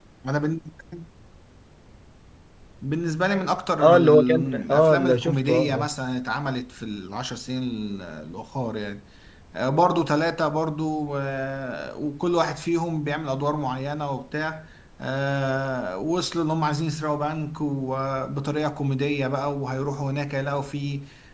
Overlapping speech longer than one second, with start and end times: 3.8-5.9

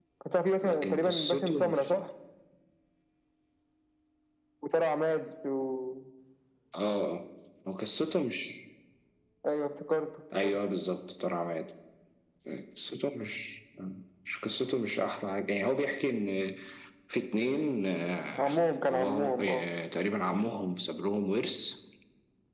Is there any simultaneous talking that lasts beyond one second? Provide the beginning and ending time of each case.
0.6-1.9, 18.4-19.6

